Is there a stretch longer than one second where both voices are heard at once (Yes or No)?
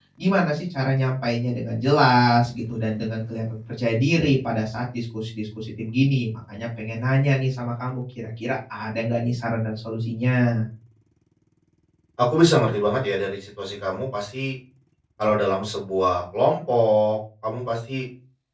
No